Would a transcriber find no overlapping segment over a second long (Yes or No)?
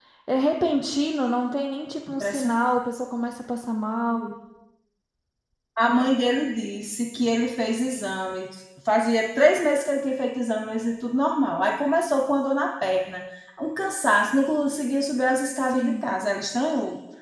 Yes